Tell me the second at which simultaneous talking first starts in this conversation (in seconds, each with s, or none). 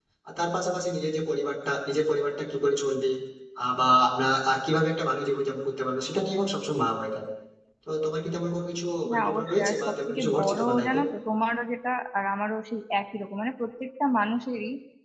9.0 s